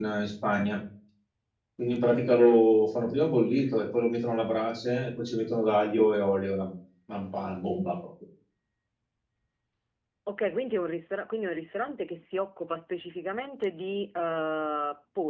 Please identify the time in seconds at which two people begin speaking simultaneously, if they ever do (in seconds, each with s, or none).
none